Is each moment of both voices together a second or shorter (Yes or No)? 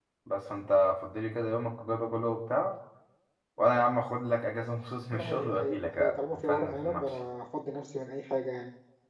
No